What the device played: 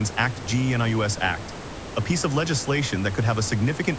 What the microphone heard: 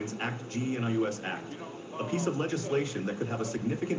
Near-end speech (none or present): present